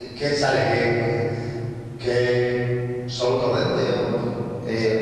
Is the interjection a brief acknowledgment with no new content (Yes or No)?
No